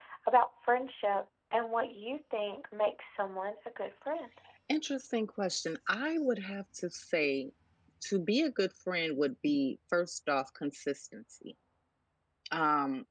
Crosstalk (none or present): none